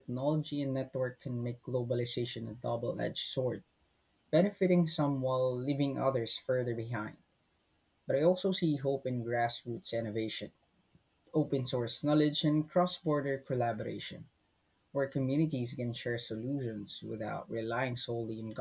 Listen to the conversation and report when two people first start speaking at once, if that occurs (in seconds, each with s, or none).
none